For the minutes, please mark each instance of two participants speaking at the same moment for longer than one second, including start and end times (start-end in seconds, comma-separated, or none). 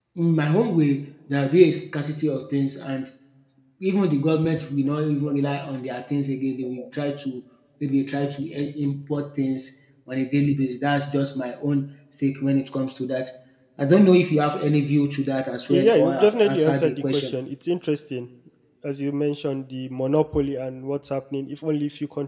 15.7-17.3